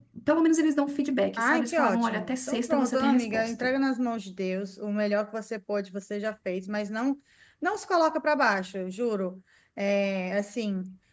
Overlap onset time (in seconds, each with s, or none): 1.4 s